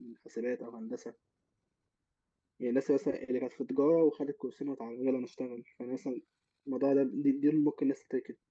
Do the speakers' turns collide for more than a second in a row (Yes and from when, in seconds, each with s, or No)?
No